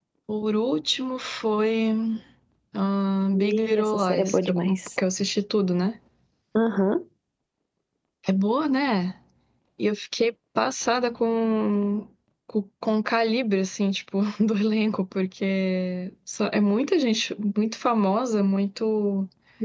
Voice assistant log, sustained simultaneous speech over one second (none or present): present